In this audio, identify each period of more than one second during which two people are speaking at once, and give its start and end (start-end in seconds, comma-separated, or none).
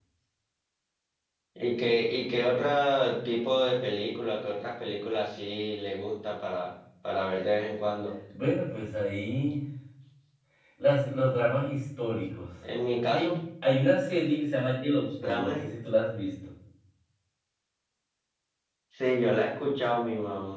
none